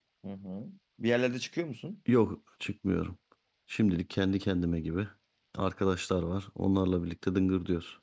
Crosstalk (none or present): none